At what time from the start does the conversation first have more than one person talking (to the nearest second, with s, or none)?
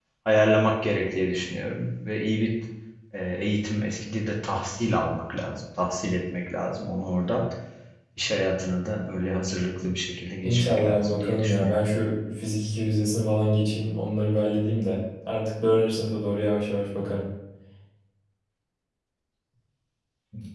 10 s